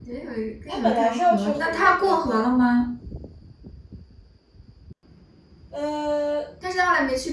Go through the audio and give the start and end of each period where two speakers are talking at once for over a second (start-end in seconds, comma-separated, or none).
0.7-2.4